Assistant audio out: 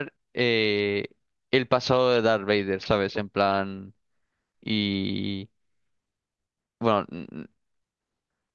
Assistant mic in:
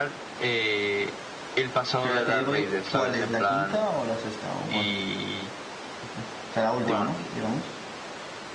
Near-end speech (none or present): present